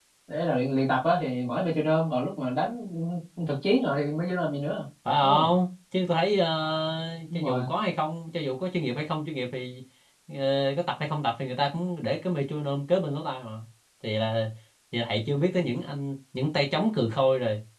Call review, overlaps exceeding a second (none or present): none